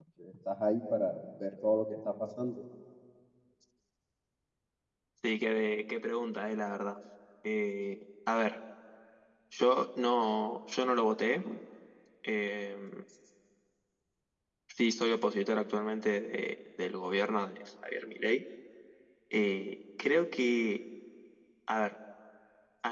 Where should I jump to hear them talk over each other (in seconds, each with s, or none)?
none